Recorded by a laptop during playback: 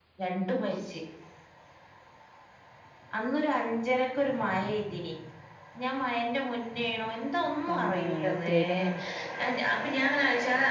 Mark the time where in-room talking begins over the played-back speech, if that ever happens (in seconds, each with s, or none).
7.7 s